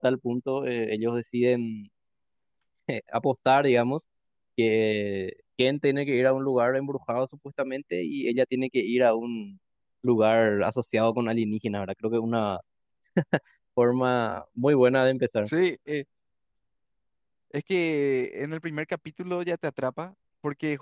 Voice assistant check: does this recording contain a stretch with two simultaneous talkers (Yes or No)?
No